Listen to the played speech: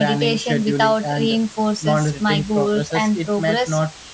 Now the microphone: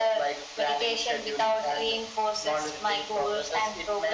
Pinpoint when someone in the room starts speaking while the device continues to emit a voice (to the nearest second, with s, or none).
none